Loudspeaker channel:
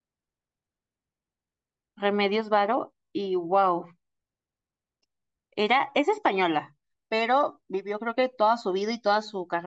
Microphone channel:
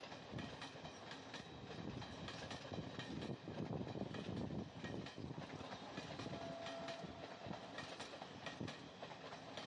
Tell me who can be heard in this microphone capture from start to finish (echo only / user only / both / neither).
neither